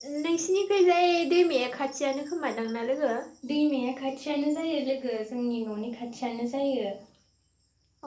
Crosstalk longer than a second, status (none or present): none